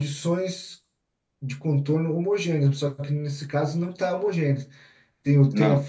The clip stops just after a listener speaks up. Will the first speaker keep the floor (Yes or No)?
Yes